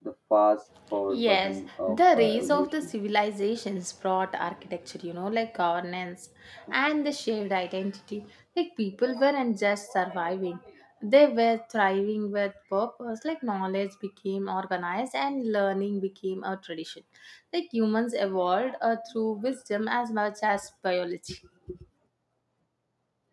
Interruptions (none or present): present